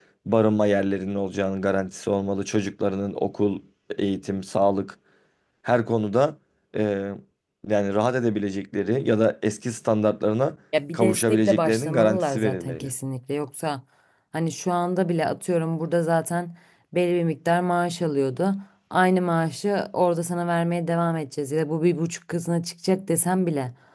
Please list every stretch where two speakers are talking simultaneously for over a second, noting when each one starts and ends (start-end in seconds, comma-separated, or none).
10.9-12.9